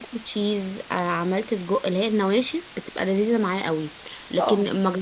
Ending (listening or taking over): listening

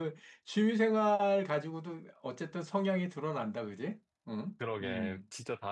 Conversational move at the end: taking over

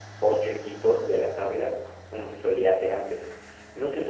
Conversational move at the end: listening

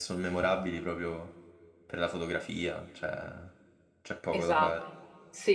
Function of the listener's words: taking over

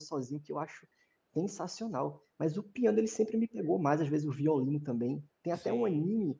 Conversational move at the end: listening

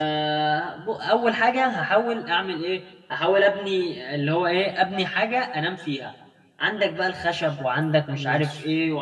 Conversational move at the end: listening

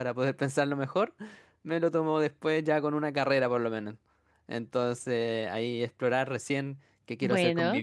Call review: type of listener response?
listening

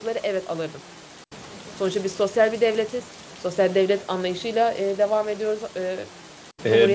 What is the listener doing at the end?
taking over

